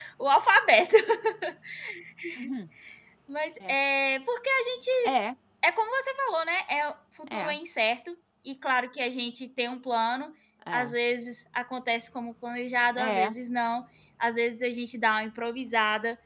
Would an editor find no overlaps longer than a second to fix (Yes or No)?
Yes